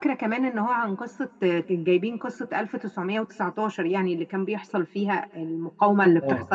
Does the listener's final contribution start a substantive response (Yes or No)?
Yes